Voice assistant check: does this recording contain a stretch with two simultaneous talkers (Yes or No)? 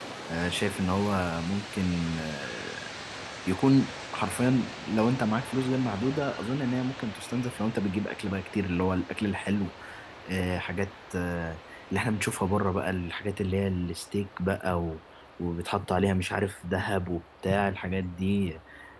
No